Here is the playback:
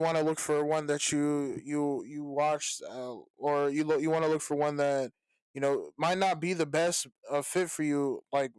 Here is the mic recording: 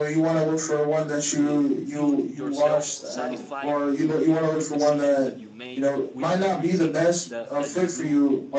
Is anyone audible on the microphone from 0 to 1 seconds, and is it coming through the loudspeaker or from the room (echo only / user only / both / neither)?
echo only